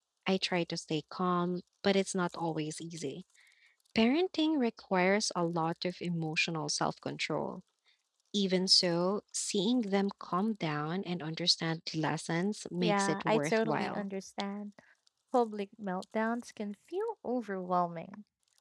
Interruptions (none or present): present